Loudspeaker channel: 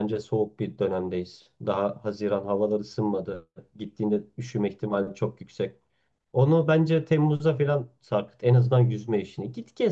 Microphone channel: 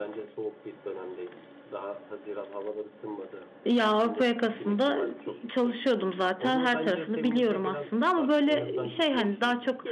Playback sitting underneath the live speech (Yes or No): Yes